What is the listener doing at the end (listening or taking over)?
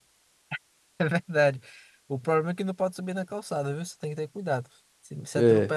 listening